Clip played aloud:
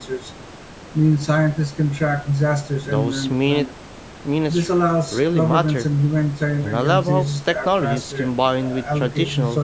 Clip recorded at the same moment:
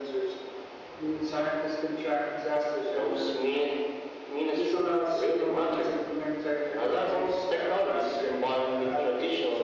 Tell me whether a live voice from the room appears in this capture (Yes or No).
No